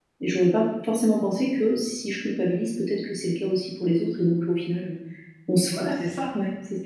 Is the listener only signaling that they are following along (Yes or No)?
No